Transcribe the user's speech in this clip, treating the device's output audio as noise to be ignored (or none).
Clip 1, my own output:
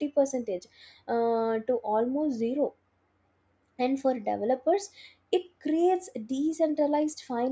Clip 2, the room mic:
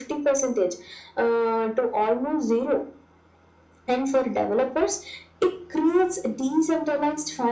none